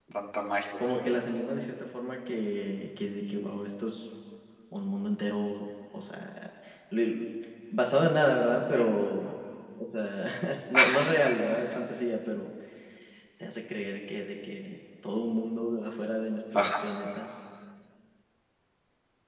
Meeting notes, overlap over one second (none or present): none